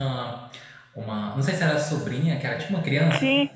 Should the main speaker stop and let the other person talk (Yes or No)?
Yes